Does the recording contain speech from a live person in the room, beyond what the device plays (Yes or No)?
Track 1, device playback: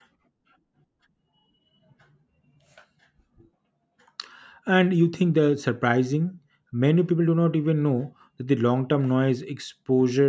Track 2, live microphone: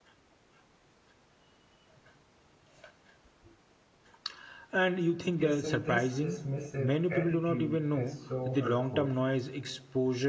Yes